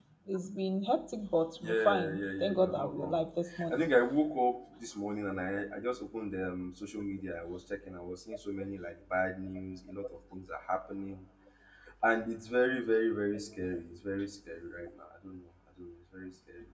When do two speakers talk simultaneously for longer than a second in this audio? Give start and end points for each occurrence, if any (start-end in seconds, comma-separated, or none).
1.6-3.2